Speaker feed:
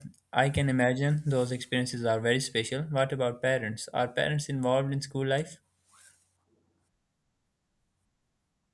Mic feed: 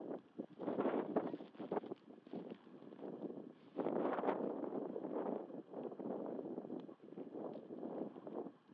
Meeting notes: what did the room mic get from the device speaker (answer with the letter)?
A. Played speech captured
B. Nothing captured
B